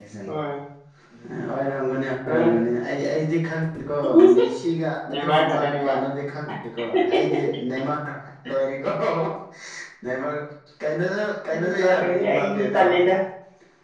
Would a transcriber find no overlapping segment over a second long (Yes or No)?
No